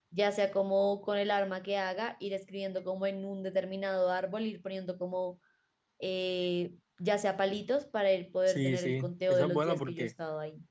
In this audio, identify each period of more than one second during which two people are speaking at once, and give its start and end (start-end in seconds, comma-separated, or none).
8.5-10.1